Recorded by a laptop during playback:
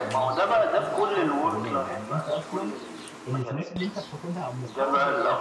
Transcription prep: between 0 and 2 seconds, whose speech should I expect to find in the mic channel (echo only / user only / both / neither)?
both